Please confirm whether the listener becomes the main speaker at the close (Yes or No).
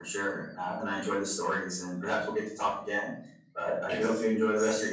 Yes